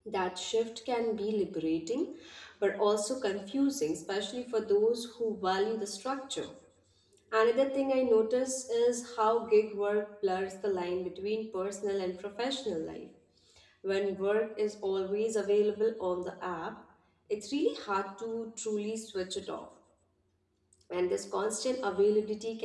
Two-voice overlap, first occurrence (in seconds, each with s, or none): none